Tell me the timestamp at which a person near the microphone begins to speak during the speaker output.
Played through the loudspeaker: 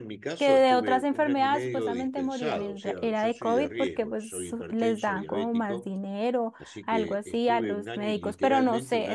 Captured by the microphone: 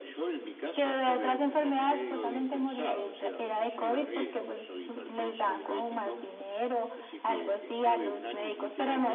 none

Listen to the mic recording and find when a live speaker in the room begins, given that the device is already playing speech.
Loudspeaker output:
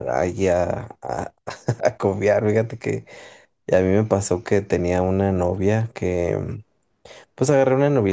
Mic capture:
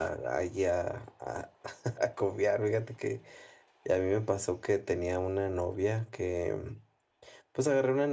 none

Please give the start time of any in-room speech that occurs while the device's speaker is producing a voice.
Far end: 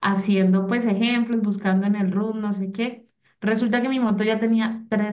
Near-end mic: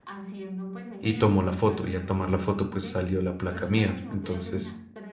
1.0 s

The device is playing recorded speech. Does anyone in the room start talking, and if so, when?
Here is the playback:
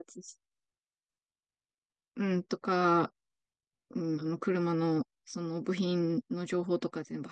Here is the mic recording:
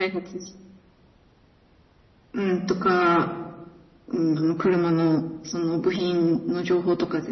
none

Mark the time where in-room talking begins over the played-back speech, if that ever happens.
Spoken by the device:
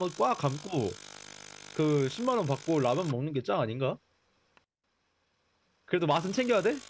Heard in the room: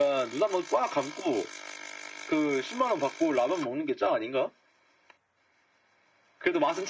none

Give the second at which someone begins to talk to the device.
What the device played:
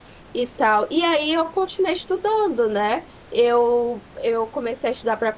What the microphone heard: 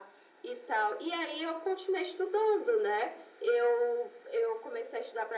none

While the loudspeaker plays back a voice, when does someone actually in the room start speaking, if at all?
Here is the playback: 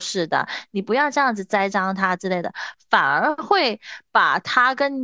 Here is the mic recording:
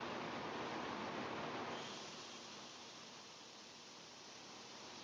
none

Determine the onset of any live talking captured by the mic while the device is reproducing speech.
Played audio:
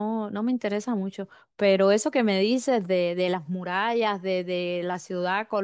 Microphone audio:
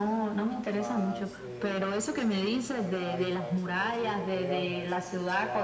0.7 s

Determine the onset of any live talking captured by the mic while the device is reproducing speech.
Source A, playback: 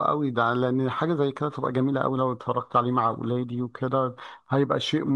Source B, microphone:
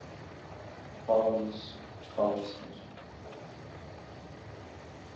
1.1 s

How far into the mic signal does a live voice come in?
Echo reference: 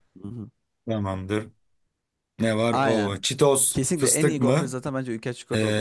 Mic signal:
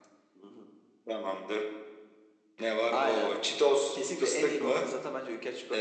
none

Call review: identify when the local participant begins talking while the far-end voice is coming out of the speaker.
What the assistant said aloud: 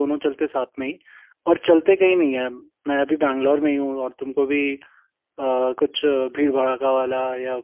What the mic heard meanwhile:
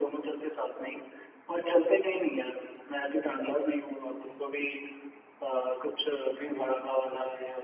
none

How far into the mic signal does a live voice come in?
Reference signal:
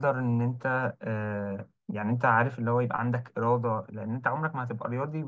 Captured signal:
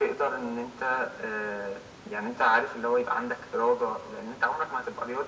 none

